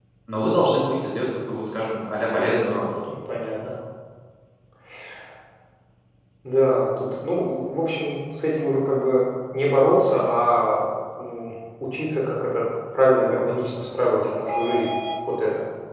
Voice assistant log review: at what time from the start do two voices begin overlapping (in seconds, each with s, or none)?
none